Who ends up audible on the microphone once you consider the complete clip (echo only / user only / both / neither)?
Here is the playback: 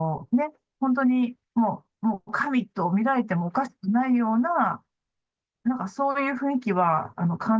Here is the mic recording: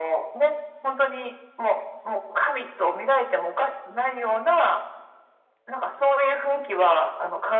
echo only